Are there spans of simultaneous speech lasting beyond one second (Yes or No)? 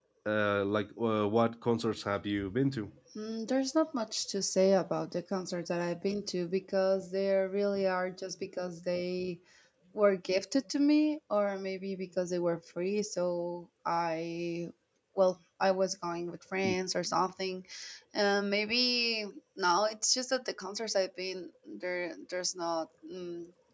No